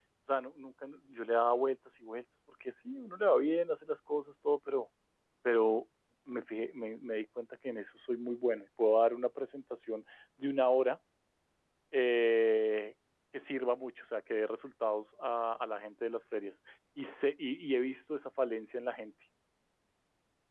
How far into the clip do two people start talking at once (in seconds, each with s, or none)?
none